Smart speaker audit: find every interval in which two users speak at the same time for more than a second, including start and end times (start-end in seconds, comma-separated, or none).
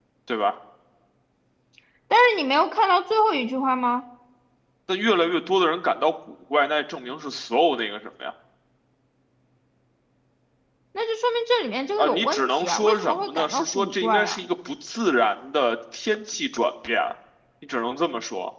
12.0-14.4